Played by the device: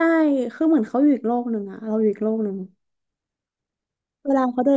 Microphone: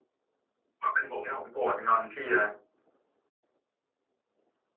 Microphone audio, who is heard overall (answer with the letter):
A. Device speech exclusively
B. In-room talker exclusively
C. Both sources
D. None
B